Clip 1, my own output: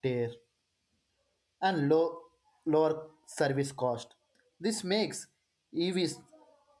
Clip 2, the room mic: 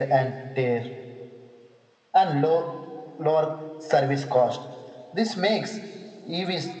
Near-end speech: none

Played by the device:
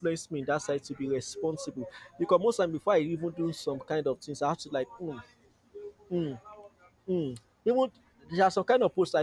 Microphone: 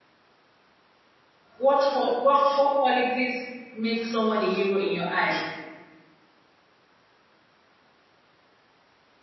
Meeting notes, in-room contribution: present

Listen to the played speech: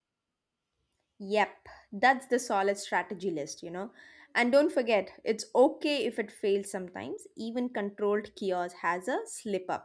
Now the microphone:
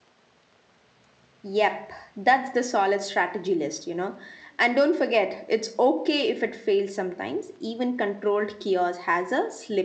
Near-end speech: none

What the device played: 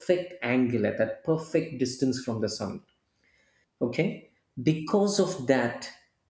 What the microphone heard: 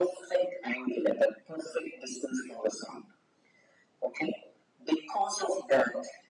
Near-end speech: none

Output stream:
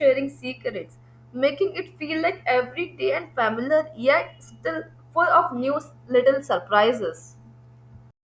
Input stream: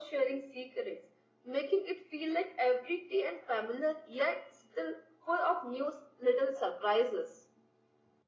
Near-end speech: none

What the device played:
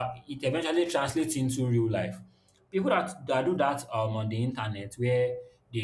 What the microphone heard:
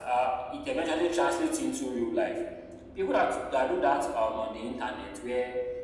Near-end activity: none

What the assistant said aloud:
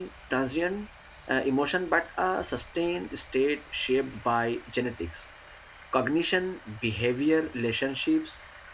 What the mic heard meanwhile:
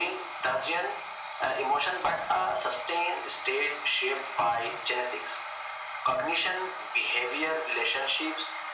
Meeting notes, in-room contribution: none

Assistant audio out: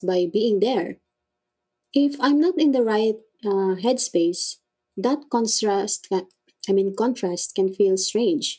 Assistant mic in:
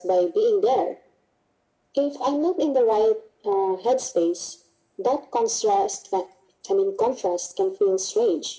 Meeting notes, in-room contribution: none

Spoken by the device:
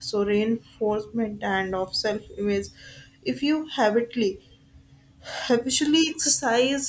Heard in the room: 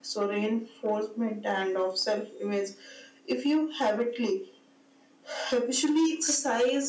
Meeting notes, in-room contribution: none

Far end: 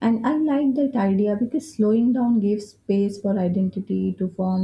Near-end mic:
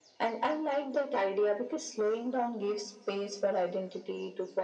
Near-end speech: none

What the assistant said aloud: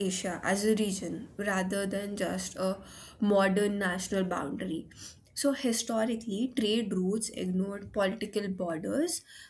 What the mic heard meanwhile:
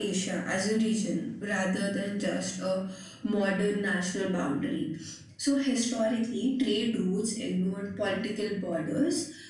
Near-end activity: none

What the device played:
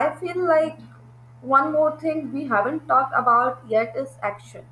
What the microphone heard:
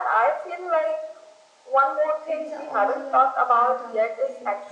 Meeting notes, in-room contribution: present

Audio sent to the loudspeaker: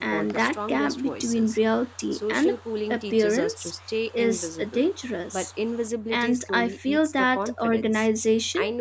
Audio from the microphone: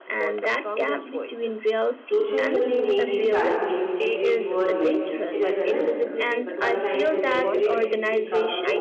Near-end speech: present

